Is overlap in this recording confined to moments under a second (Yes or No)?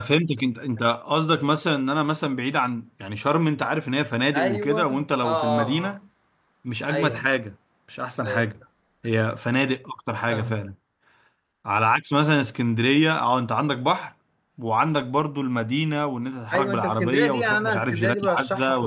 No